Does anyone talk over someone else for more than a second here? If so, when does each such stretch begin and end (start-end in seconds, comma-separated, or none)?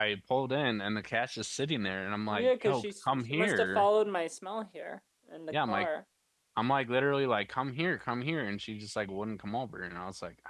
2.3-3.9